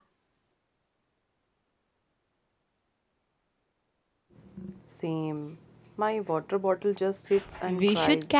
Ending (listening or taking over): taking over